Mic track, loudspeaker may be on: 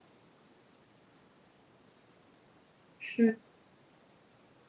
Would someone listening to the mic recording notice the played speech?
No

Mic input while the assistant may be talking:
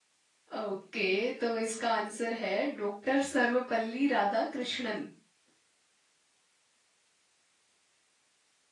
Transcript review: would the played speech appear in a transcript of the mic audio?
No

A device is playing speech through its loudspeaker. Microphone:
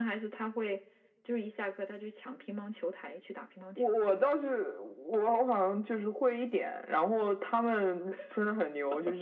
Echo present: Yes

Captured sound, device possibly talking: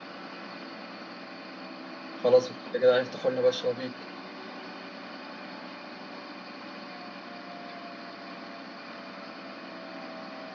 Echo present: No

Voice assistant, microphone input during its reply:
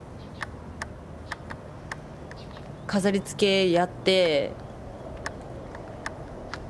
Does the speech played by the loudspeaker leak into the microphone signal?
No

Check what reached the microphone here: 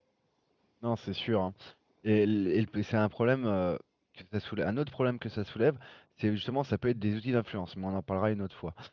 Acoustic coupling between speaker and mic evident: No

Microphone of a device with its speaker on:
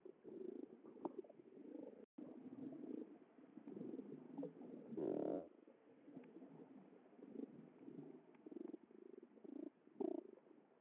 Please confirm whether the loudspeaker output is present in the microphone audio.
No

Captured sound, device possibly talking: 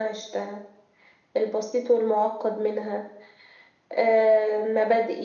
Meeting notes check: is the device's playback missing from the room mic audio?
No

